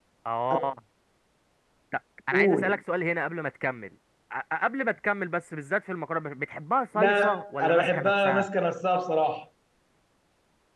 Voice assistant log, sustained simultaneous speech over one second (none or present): present